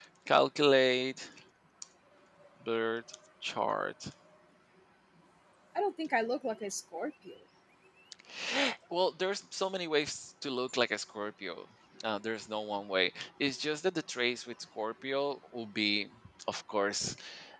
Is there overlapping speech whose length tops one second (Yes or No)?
No